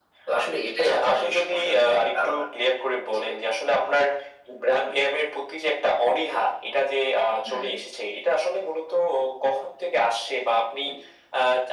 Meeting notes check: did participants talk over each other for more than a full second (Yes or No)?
Yes